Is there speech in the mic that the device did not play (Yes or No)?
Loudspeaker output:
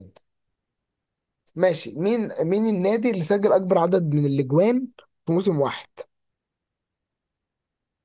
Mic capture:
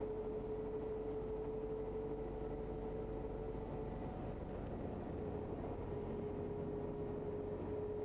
No